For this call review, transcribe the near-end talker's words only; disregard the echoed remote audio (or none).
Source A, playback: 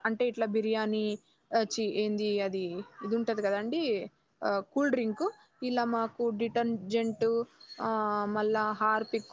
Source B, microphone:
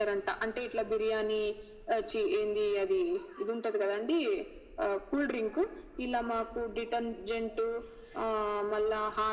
none